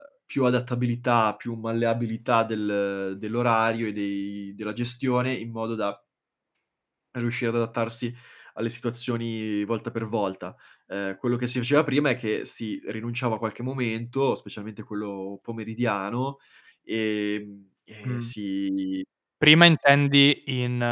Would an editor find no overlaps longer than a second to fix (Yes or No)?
Yes